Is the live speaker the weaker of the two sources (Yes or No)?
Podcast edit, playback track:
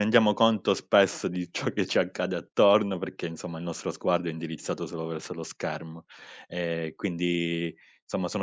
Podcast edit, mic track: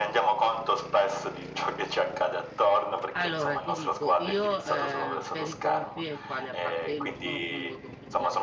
Yes